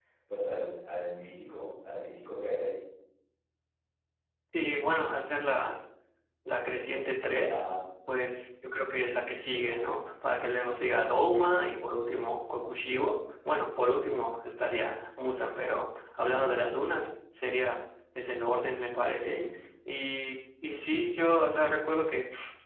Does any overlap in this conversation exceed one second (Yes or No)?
No